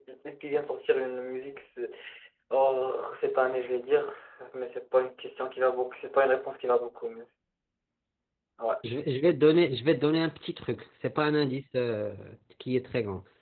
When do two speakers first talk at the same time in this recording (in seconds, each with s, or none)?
none